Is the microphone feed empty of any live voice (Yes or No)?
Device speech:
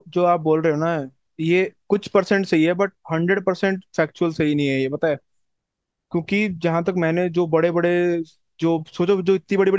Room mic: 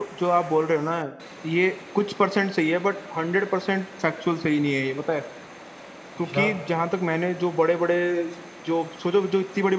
No